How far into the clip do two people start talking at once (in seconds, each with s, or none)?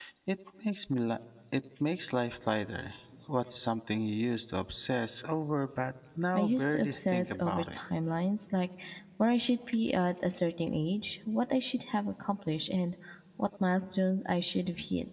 6.3 s